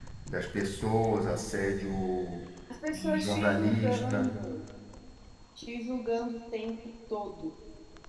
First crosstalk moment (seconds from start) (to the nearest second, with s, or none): 3 s